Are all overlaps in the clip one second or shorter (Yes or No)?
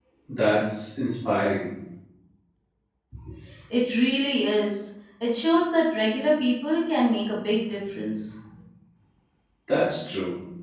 Yes